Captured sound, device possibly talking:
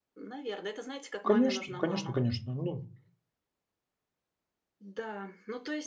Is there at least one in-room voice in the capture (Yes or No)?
Yes